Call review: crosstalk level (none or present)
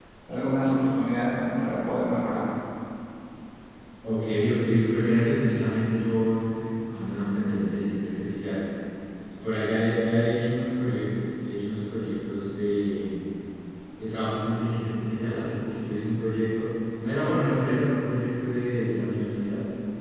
none